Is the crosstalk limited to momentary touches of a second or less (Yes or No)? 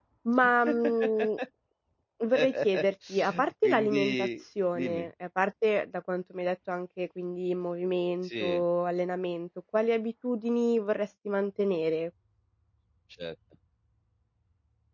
No